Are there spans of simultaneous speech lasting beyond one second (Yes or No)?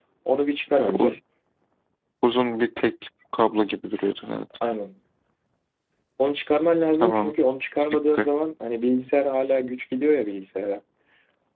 No